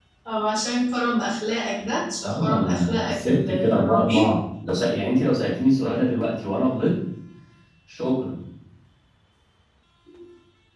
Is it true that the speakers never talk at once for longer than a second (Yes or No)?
No